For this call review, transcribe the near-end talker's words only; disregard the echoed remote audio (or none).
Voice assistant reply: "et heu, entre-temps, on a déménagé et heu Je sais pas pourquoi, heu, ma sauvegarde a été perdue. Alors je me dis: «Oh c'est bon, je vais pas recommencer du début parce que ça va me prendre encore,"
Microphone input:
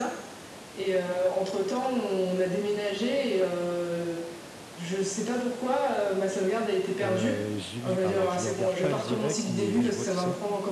Euh, j'ai- alors, je le regarde pas direct, mais oui, je vois qui c'est.